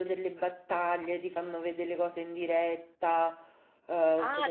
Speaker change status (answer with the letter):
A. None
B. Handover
B